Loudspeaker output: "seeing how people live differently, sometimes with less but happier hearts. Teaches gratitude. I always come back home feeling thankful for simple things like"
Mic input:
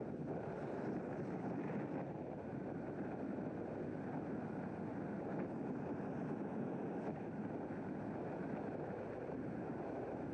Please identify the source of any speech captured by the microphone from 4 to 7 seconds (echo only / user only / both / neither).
neither